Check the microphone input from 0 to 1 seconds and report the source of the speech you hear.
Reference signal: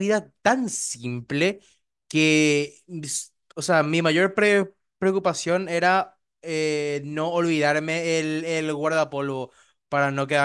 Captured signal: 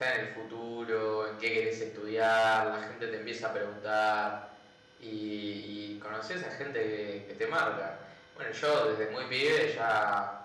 user only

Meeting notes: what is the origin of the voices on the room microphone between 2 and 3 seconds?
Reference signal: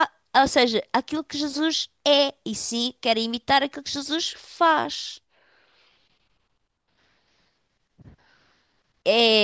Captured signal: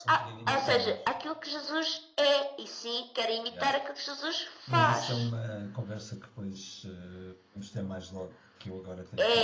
echo only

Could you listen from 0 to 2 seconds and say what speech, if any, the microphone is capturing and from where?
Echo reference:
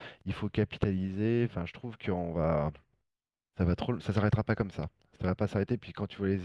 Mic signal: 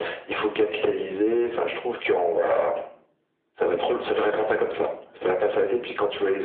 echo only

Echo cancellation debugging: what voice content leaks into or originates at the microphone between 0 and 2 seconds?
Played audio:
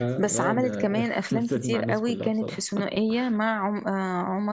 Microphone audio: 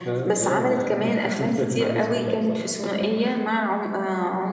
echo only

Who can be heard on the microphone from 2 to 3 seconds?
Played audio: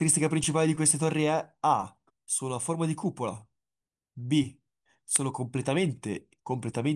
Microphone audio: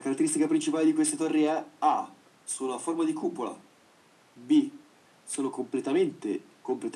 echo only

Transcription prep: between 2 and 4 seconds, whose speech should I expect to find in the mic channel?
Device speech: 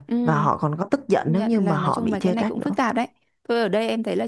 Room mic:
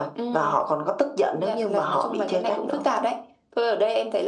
echo only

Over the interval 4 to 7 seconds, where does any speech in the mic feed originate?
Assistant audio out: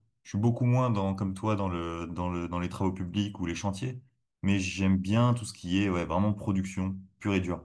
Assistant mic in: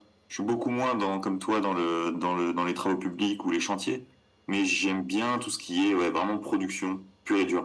echo only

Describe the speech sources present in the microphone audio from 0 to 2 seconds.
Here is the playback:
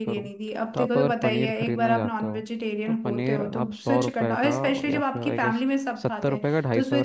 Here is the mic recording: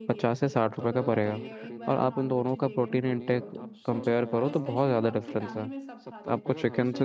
both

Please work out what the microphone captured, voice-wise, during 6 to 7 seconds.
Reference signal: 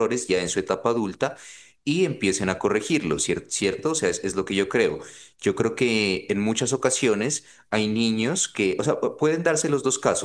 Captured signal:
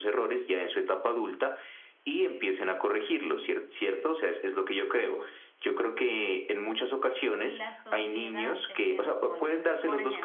echo only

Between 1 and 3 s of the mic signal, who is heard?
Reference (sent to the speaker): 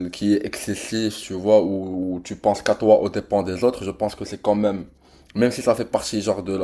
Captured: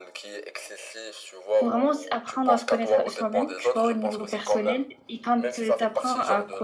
both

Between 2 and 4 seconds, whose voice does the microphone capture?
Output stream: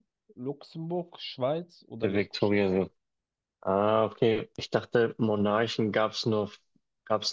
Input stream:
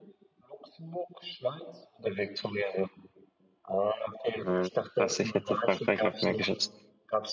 echo only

